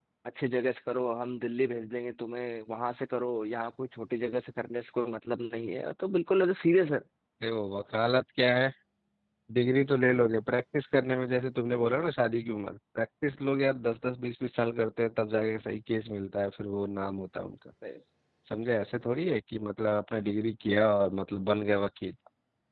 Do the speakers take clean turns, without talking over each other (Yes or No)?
Yes